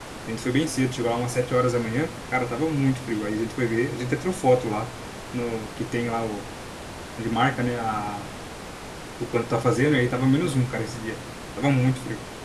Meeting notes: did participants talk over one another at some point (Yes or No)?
No